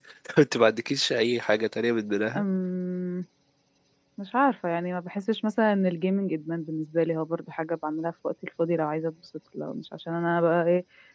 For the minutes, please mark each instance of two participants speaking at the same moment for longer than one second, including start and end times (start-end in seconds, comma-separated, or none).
none